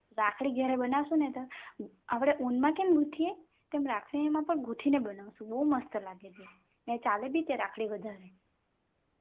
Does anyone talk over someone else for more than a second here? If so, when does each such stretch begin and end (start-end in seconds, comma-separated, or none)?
none